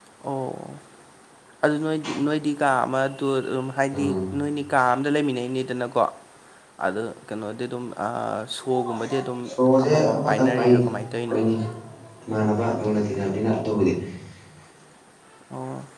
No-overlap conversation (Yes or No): No